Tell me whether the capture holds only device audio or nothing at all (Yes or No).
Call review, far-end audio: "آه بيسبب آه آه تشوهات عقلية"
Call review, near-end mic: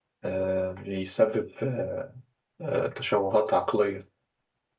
Yes